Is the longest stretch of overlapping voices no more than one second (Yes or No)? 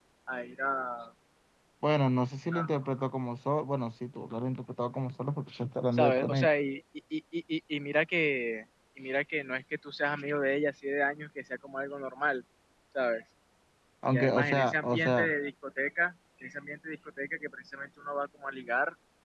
No